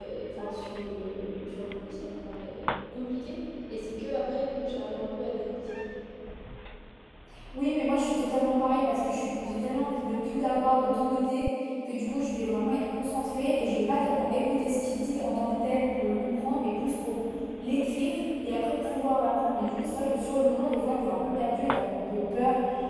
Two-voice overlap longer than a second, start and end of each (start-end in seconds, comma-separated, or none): none